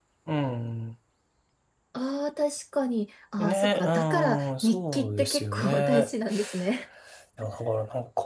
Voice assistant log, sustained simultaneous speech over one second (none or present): present